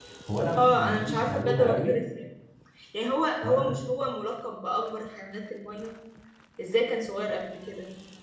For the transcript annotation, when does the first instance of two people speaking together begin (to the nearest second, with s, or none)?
1 s